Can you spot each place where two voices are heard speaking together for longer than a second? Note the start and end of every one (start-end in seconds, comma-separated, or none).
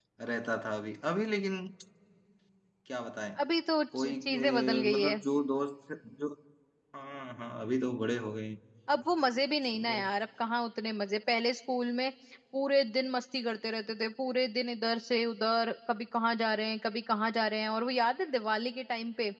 4.0-5.2